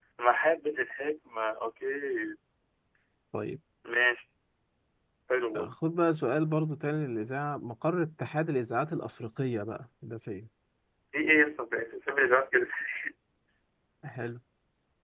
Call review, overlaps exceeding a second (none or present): none